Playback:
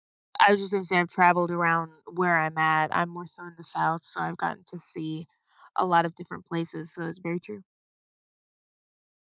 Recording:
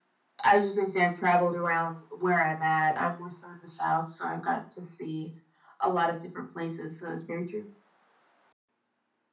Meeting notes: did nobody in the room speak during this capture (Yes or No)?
Yes